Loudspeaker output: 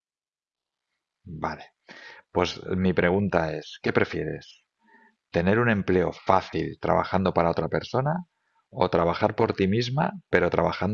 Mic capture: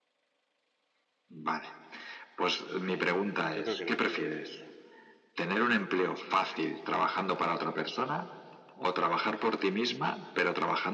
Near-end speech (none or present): present